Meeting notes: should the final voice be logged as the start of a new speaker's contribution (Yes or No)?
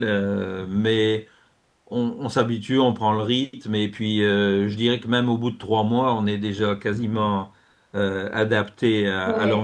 Yes